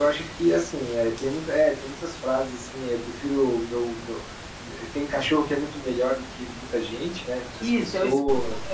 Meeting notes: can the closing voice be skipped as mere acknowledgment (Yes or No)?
No